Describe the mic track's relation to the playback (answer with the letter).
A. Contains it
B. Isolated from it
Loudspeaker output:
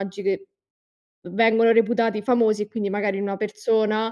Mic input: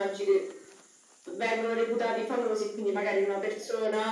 A